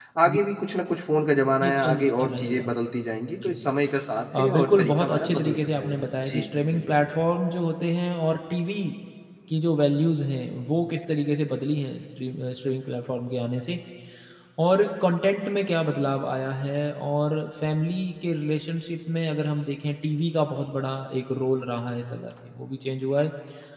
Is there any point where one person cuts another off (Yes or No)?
Yes